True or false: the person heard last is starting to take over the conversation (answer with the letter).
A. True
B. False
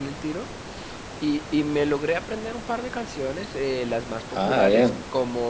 B